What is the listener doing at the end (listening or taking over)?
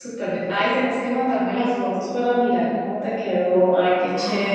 taking over